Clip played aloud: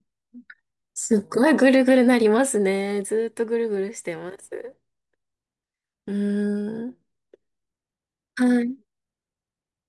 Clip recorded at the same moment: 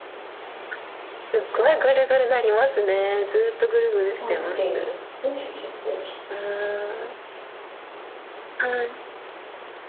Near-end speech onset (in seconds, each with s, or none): 4.2 s